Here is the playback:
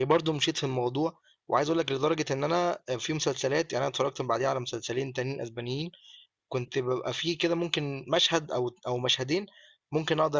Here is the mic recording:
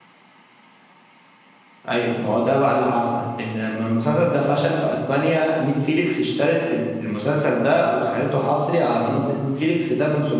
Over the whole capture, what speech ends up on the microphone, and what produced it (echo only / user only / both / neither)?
user only